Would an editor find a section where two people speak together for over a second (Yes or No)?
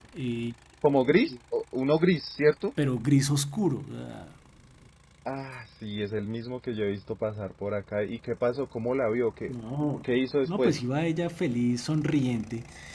No